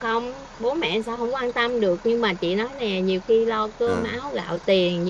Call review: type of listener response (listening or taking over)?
listening